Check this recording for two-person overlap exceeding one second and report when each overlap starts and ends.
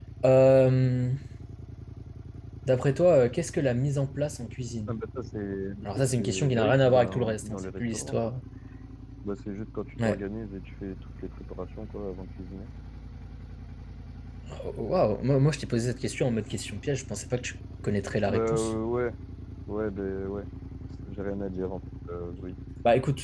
5.8-8.3

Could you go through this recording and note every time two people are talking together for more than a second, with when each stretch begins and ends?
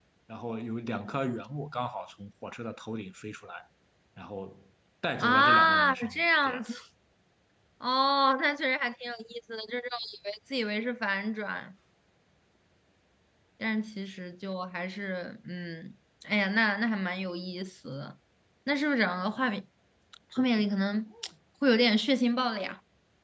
5.2-6.6

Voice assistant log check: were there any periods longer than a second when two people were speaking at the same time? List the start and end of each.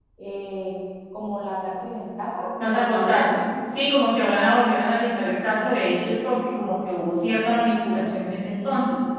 2.6-3.8

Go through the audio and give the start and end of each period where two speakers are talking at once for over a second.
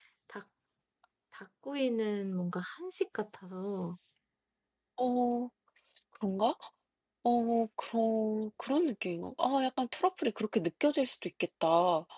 none

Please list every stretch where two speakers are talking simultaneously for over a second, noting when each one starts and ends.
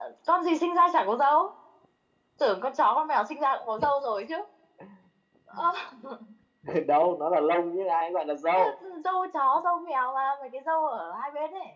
none

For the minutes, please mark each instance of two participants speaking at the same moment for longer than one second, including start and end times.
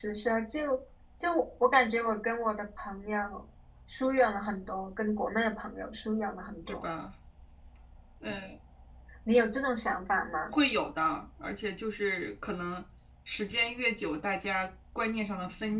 none

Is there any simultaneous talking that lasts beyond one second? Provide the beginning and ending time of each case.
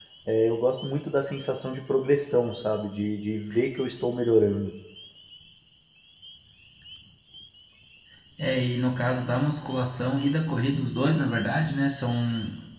none

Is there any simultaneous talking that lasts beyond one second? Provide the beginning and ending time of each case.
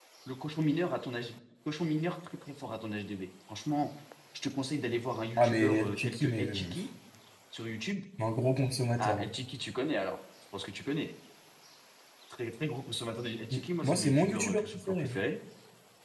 5.4-6.8, 13.5-15.2

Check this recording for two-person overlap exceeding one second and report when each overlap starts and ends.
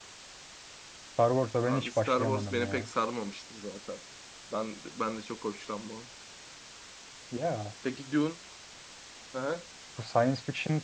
1.6-2.9

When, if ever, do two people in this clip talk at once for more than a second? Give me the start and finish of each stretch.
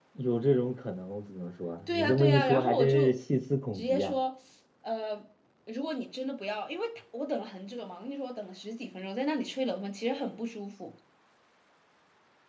1.9-3.1

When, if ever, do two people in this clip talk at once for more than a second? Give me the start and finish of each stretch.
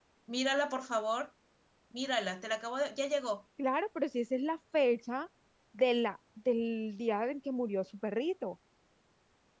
none

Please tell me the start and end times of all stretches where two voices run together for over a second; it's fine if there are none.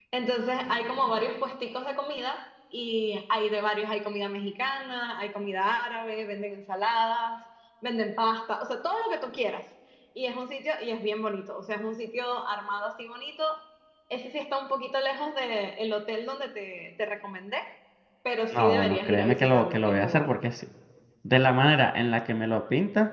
18.5-20.4

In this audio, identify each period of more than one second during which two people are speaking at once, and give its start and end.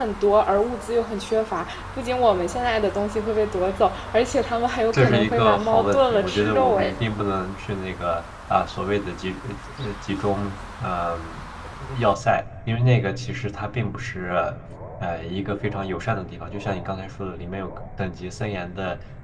4.9-6.9

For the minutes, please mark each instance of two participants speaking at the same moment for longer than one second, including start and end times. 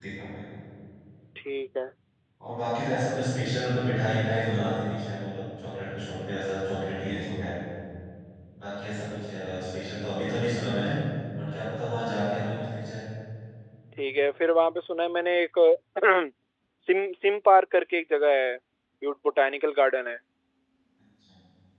none

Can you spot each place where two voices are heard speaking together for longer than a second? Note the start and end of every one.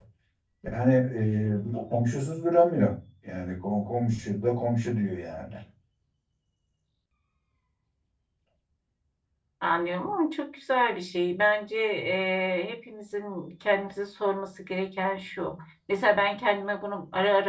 none

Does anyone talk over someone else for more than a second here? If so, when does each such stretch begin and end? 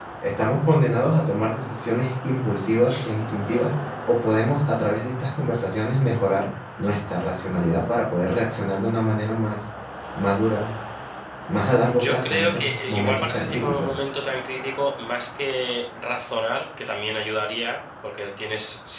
11.9-13.9

